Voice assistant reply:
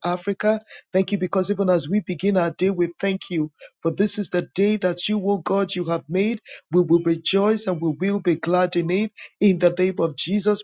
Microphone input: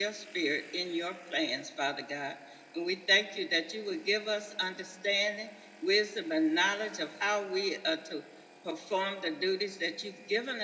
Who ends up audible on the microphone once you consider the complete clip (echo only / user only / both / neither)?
user only